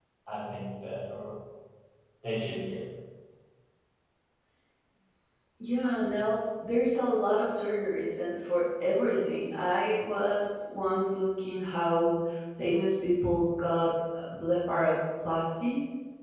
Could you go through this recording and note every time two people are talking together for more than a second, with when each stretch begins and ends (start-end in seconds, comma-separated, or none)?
none